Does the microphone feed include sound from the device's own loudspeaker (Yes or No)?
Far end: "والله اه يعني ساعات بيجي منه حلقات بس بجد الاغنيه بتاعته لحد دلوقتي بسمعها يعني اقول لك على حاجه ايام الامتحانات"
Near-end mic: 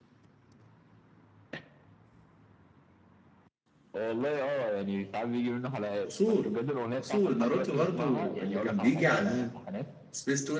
Yes